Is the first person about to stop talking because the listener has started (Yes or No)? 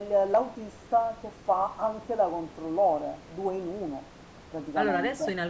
Yes